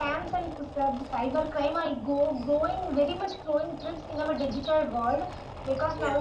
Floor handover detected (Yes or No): No